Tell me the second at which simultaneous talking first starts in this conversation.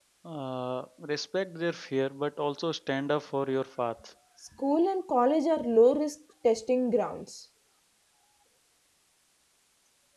none

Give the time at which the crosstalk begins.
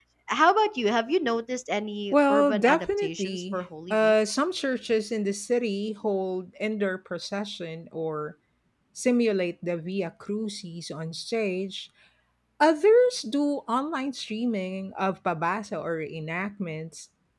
2.1 s

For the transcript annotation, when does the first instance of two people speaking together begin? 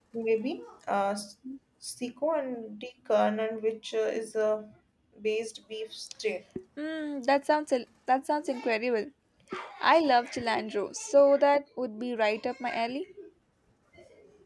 none

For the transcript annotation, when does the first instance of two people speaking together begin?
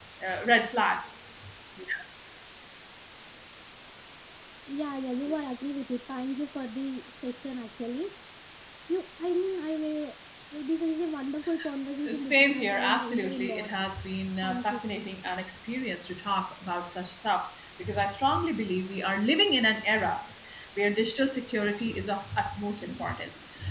12.1 s

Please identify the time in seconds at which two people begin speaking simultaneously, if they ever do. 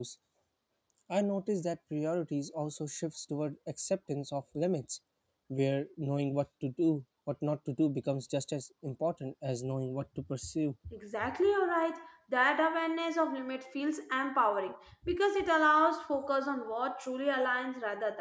none

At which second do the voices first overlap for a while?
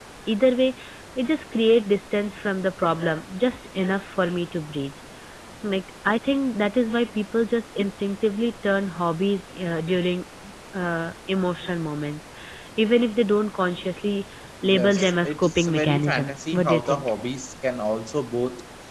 14.6 s

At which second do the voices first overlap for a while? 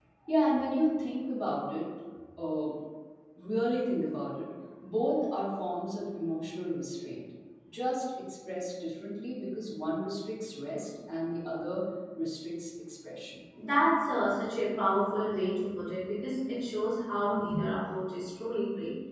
none

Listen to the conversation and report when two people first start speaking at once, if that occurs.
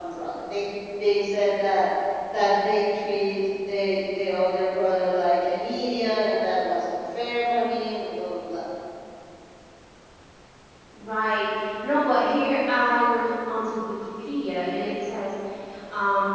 none

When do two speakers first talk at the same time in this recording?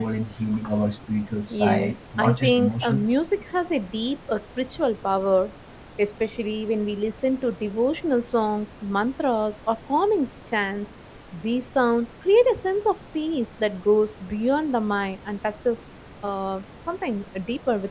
1.5 s

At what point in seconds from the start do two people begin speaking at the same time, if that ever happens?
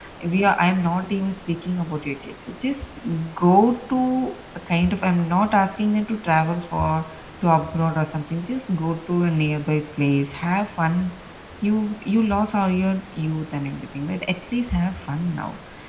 none

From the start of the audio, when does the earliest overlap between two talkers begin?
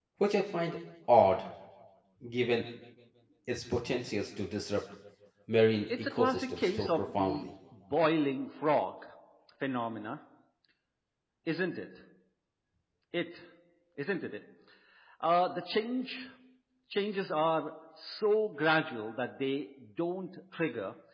6.0 s

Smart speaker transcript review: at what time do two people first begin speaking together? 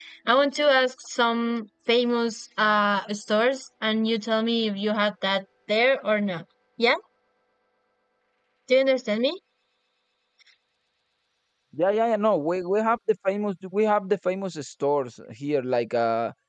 none

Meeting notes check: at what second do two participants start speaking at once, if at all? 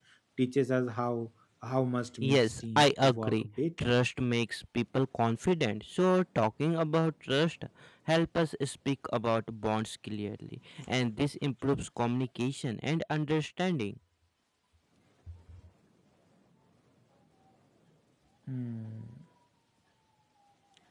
2.2 s

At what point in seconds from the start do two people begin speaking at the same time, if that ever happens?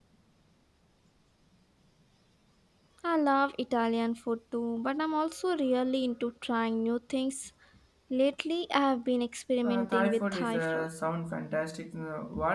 9.6 s

